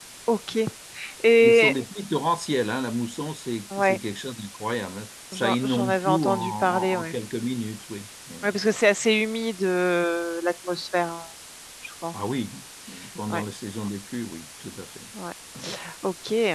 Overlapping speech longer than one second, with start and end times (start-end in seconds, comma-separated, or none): 5.3-7.2